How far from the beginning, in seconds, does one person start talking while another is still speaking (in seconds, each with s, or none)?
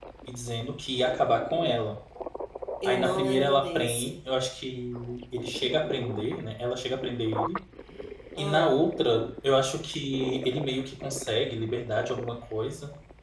2.8 s